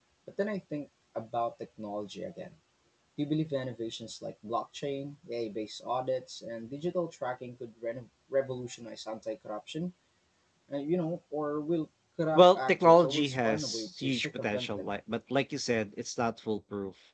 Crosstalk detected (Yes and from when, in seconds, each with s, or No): Yes, from 12.3 s